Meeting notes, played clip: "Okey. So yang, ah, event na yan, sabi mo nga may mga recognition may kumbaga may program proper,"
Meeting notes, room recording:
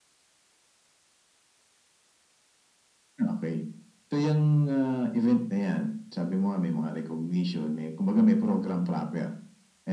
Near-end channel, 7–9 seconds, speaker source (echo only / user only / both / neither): echo only